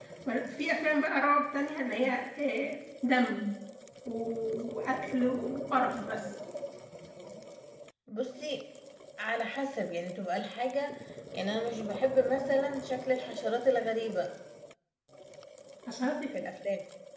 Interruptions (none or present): none